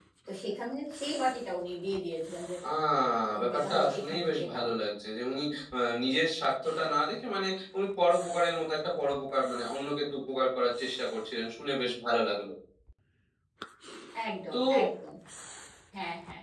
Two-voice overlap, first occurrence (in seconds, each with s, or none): 3.4 s